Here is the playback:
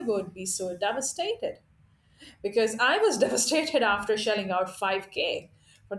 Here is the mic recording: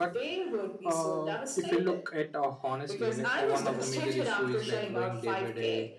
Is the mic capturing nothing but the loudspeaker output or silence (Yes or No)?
No